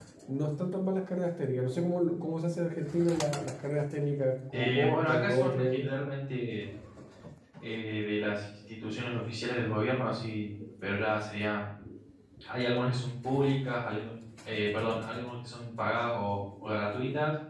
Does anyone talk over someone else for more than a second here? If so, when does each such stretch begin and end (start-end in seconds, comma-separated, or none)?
4.5-5.9